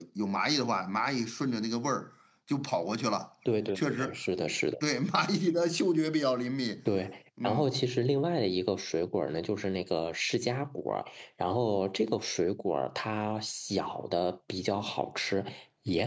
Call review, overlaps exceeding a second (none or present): none